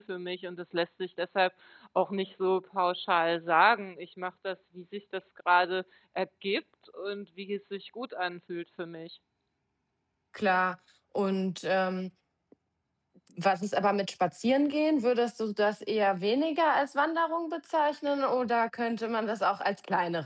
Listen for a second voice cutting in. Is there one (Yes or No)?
No